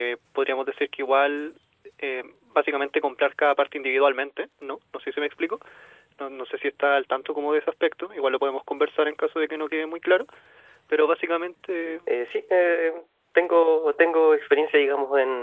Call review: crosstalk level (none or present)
none